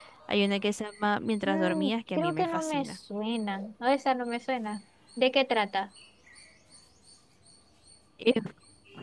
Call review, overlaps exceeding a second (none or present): present